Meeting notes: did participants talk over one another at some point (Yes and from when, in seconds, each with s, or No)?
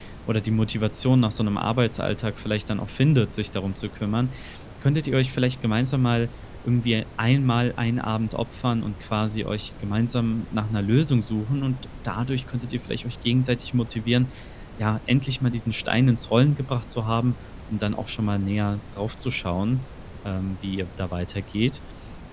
No